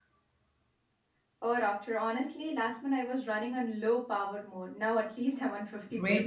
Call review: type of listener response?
taking over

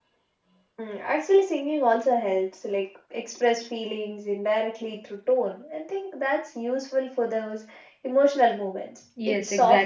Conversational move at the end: taking over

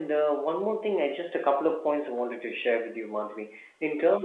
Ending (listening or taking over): listening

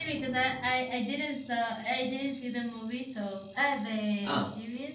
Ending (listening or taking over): listening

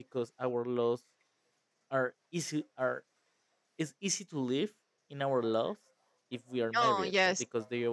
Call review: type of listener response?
listening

